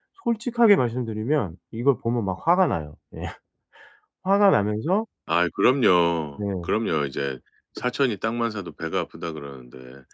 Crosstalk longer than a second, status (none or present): none